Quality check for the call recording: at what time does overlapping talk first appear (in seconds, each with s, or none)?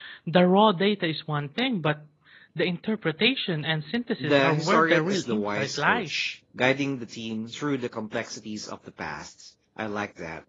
4.2 s